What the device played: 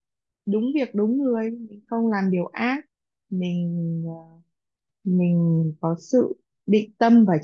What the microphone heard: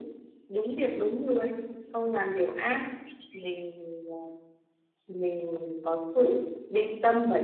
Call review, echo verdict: present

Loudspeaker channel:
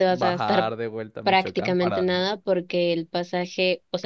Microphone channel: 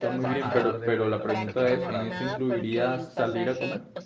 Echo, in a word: present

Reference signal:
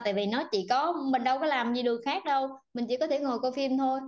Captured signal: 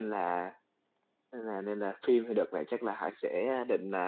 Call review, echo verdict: none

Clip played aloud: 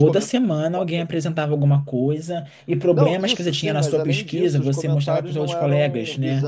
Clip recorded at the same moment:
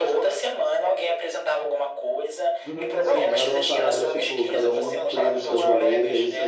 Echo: present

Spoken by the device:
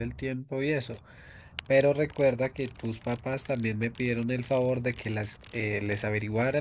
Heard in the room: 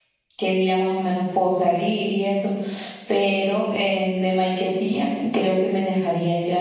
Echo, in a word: none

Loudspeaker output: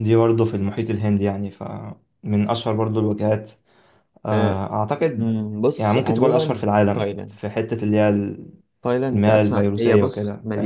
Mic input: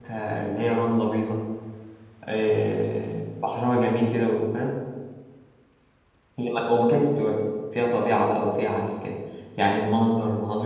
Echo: none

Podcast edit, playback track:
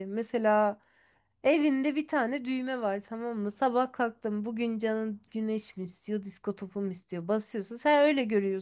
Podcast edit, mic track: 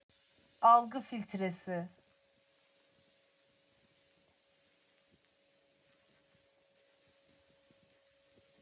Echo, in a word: none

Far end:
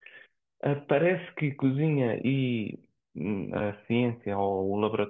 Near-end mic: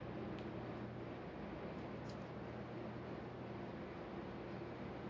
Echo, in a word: none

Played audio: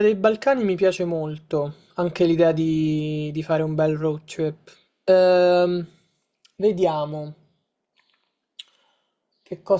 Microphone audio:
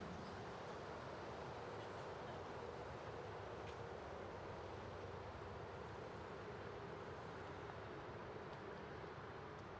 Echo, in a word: none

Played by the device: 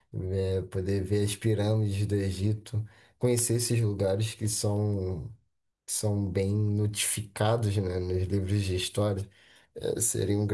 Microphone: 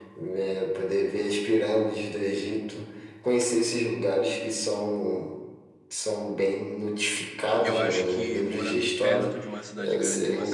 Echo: present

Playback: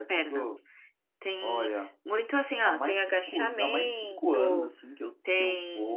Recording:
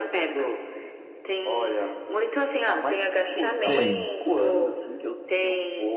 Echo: present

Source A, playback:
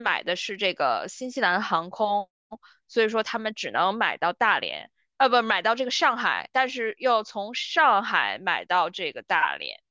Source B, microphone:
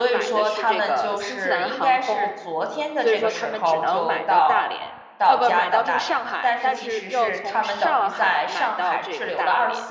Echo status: present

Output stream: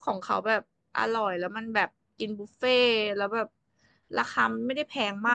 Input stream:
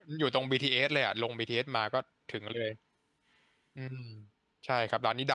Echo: none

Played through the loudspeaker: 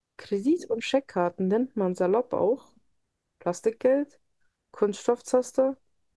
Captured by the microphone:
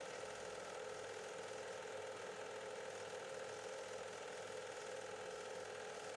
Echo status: none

